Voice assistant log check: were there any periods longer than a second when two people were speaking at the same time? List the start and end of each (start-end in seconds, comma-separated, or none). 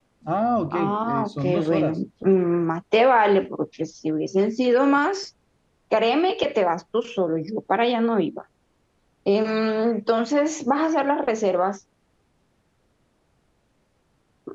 0.7-2.0